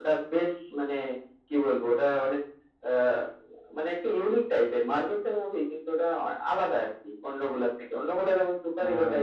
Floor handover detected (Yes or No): No